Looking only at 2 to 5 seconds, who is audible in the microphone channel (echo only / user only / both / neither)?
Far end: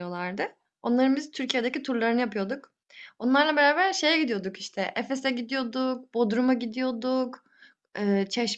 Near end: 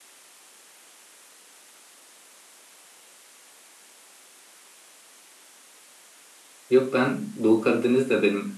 neither